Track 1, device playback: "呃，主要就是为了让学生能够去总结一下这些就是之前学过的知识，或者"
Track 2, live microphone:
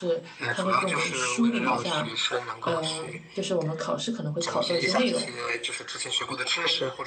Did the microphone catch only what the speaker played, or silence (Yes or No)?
No